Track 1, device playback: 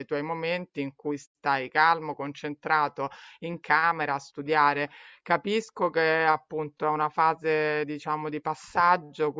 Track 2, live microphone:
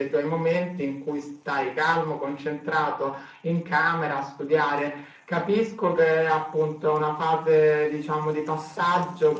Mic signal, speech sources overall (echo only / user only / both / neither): echo only